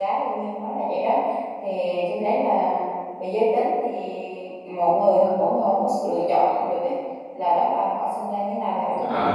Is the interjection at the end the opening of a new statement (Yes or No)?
Yes